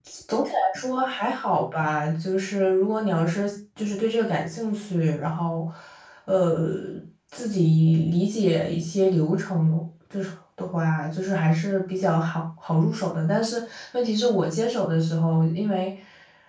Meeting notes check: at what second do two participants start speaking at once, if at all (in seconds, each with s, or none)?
none